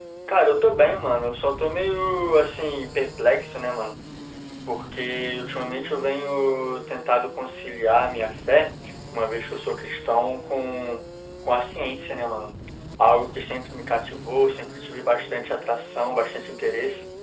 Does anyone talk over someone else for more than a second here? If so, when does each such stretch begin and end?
none

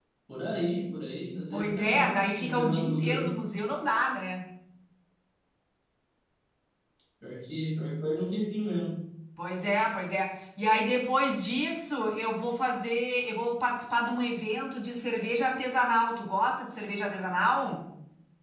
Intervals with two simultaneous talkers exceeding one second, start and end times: 1.5-3.4

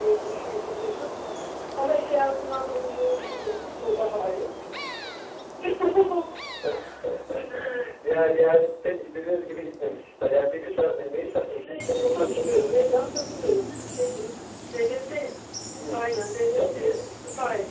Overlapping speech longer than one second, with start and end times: 11.5-12.9

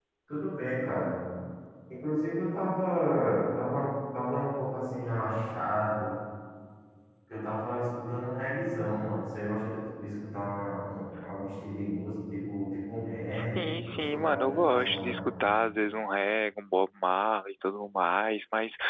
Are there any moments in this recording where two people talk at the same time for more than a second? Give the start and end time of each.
13.3-15.2

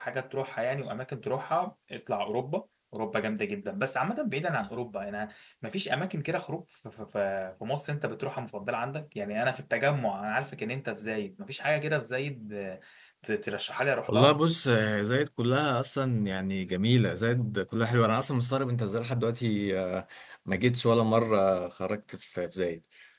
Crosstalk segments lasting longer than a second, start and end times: none

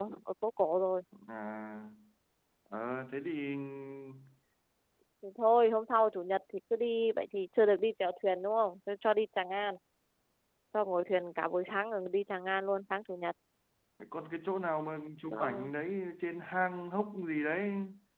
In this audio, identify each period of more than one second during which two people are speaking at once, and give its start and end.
none

